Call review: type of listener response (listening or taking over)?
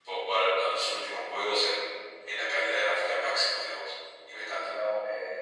taking over